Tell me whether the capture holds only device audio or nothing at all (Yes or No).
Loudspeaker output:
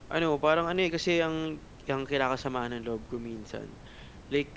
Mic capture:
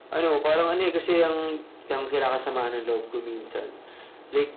Yes